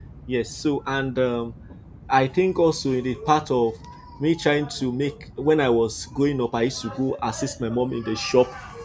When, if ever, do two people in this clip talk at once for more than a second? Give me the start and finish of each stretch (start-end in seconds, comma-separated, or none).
none